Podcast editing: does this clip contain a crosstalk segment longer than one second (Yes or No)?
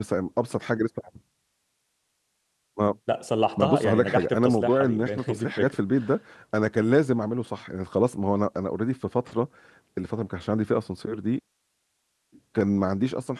Yes